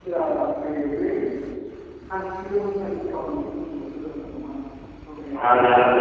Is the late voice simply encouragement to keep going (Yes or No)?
No